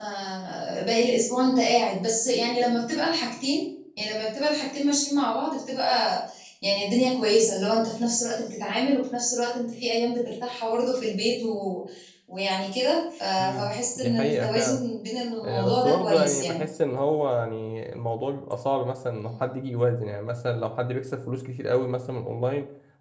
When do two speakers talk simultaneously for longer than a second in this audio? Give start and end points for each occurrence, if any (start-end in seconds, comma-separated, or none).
13.4-14.8, 15.4-16.6